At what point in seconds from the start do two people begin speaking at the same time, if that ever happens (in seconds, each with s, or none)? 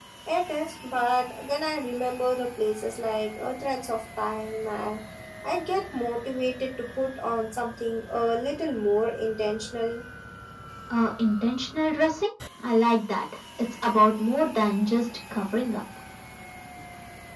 none